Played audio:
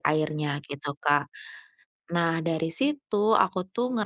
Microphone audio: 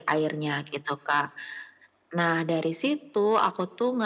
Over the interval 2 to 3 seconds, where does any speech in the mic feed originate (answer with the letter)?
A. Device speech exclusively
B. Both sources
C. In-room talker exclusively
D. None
A